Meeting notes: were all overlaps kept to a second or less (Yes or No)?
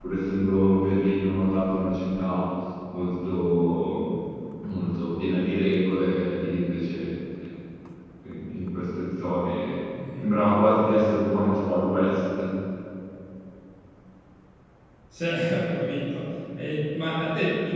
Yes